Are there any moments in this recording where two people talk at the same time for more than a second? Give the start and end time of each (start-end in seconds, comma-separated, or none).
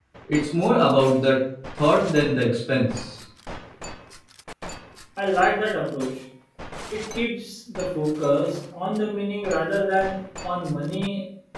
none